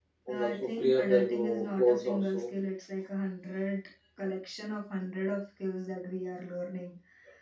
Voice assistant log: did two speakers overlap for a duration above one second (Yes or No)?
Yes